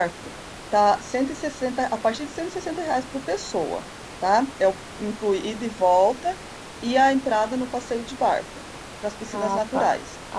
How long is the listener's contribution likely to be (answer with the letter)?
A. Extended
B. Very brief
A